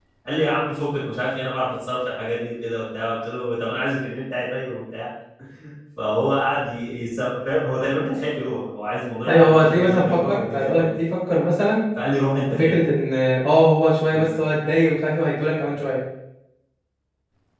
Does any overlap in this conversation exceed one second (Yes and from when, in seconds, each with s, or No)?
Yes, from 9.3 s